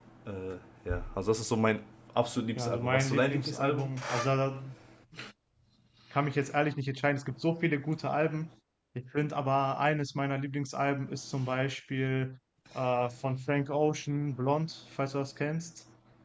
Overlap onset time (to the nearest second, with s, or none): 3 s